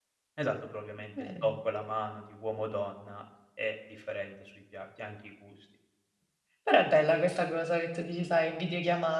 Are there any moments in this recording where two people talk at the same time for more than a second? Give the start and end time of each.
none

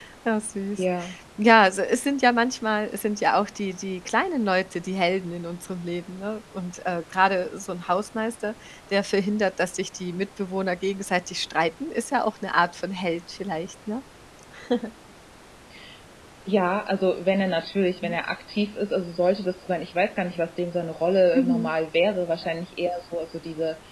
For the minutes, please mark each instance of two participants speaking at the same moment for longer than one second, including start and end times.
none

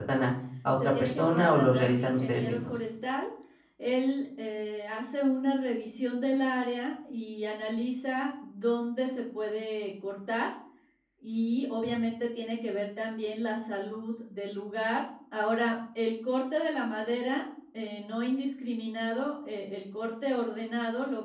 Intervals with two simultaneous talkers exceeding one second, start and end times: 0.7-2.8

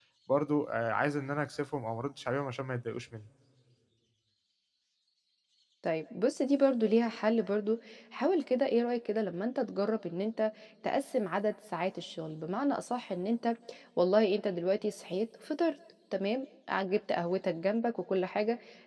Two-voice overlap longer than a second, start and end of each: none

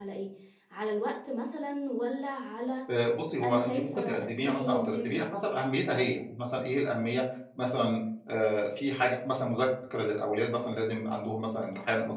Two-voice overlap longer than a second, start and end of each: 3.4-5.2

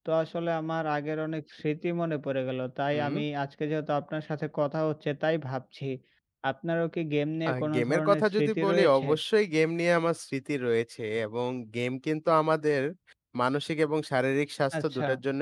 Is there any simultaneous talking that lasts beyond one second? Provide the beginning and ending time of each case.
7.5-9.1

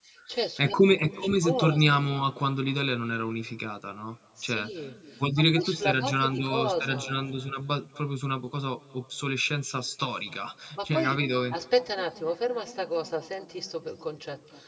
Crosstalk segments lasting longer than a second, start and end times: 0.6-1.8, 5.4-7.1

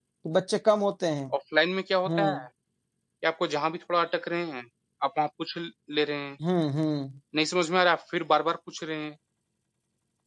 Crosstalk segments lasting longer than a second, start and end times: none

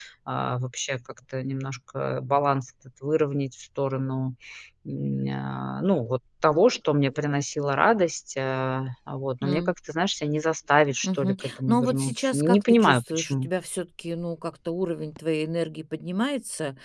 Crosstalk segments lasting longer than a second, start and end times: 11.0-13.5

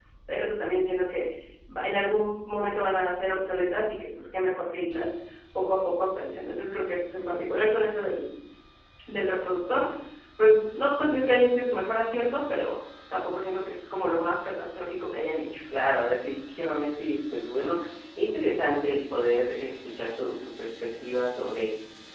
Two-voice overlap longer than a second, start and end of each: none

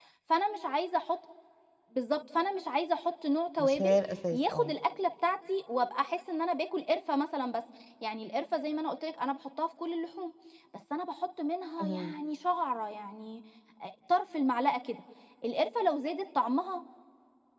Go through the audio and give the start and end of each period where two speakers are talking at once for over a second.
none

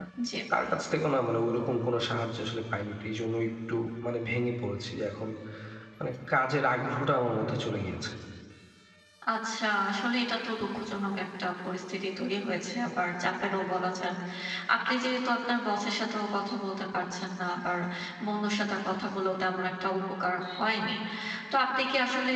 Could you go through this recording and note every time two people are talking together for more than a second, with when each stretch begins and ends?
none

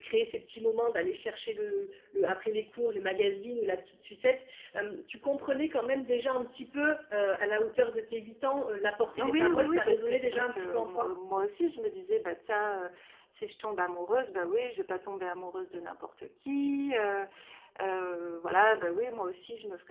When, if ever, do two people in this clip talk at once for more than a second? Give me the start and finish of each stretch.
9.0-11.1

